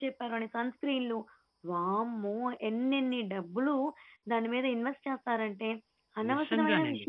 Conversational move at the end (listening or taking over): listening